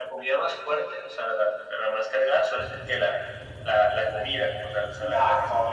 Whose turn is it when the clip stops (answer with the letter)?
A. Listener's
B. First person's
A